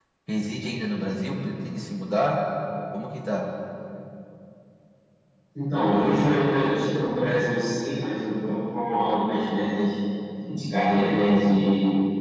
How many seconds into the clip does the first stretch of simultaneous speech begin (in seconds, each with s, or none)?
none